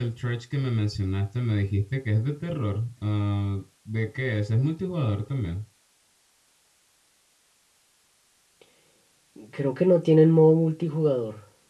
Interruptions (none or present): none